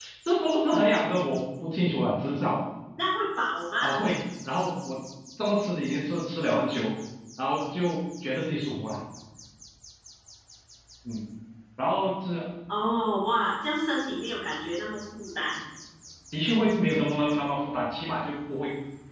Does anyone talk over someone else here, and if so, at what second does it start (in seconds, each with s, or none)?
none